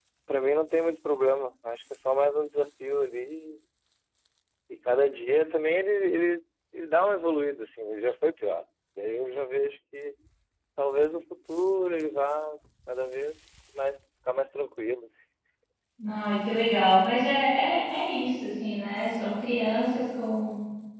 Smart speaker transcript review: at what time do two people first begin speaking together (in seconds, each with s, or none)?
none